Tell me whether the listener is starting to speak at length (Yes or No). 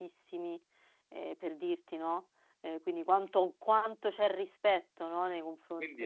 Yes